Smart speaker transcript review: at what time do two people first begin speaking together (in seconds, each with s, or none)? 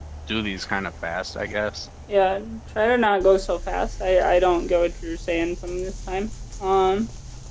none